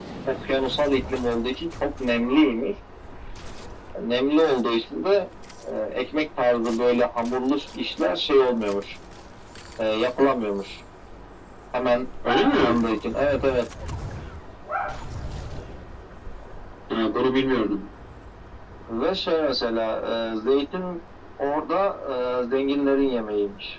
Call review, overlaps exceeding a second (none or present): none